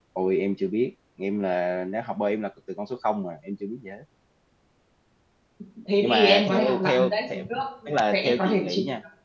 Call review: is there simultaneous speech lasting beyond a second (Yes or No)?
Yes